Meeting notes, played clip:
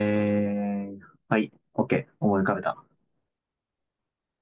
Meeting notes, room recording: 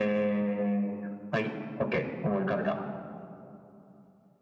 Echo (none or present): present